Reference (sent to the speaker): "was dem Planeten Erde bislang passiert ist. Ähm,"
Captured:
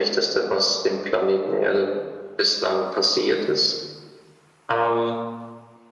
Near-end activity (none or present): none